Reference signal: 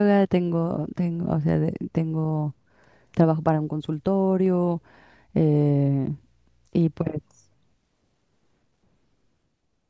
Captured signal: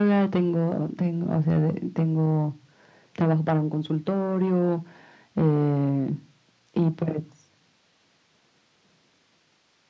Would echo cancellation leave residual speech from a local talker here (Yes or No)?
No